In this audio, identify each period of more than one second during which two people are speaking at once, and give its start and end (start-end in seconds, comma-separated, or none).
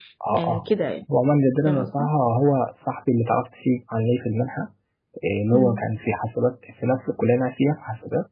none